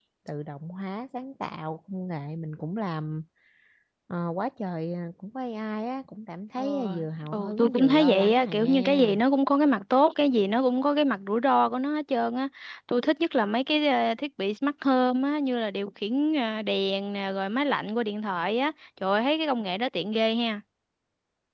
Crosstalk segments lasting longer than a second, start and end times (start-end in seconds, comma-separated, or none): 6.6-9.1